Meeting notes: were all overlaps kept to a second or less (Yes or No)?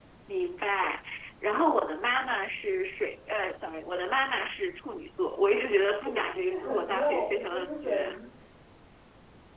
No